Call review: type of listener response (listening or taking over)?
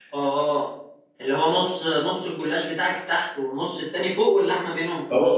taking over